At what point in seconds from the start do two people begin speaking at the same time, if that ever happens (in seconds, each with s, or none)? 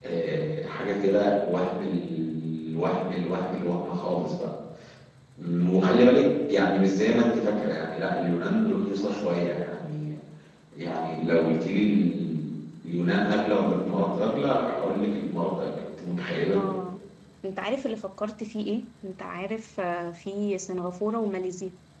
none